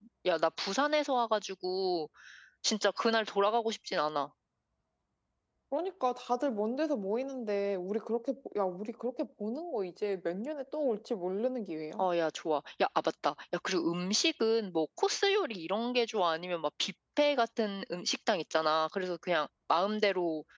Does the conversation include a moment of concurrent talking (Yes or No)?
No